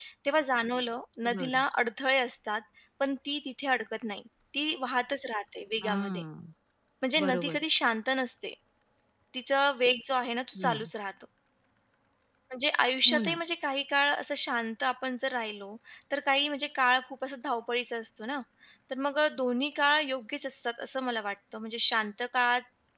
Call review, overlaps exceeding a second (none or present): none